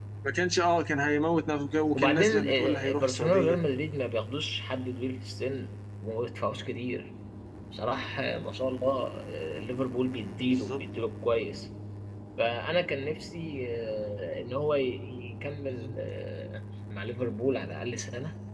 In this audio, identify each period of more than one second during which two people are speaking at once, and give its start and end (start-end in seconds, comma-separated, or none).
1.9-3.6